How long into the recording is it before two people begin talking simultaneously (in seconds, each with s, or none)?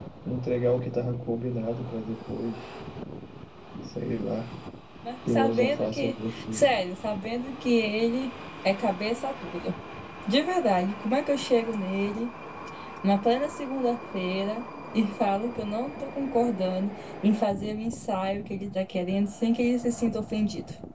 5.3 s